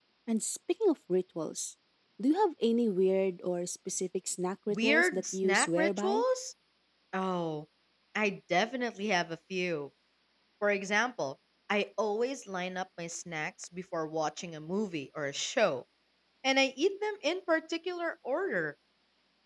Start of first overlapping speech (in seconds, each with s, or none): 4.7 s